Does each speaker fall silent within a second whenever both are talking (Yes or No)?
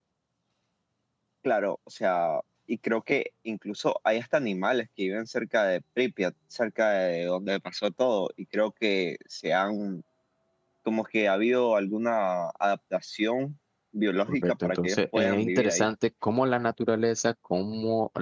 No